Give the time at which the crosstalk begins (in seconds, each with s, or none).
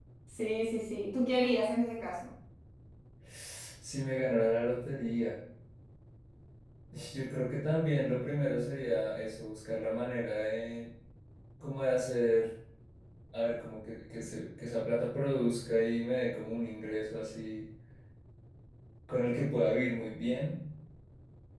none